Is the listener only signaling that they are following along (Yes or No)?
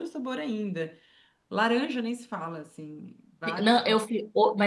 No